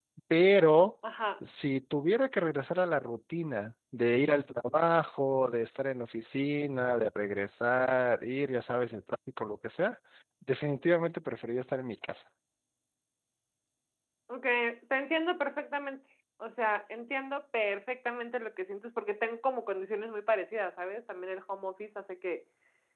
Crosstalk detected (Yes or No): No